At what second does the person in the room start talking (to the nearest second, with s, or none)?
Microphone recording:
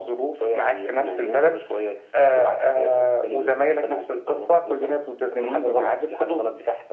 none